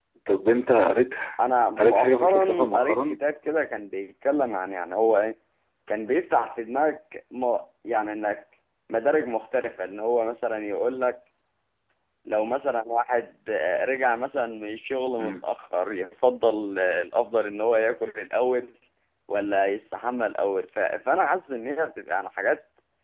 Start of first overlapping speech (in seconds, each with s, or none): 1.8 s